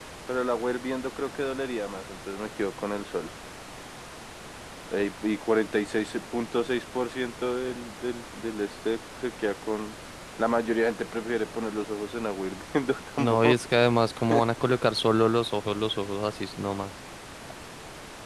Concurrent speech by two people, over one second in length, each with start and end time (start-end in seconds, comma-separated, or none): none